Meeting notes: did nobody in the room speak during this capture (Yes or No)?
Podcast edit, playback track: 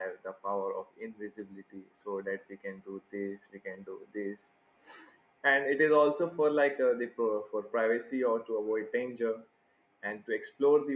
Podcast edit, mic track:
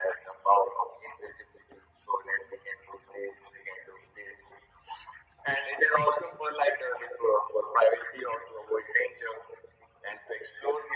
Yes